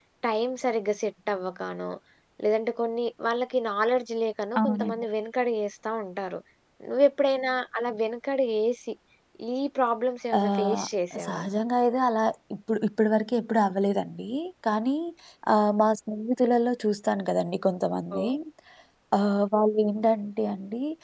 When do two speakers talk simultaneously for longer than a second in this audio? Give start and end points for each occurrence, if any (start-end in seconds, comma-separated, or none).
none